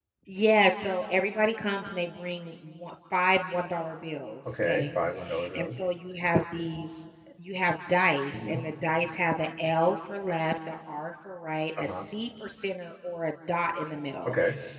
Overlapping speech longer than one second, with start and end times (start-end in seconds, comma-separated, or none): none